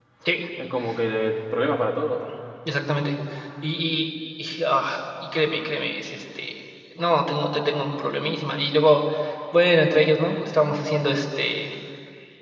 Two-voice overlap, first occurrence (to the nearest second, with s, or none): none